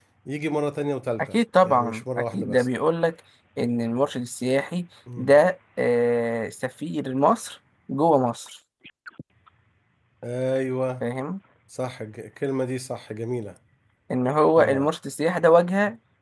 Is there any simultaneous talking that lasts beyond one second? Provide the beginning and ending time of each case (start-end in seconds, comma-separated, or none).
1.2-2.7